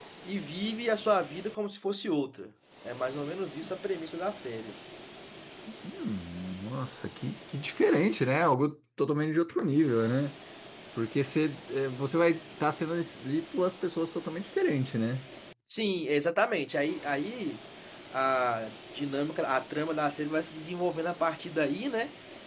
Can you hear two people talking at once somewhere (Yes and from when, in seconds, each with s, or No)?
No